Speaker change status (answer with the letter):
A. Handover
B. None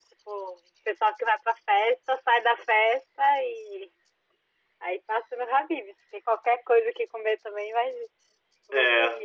A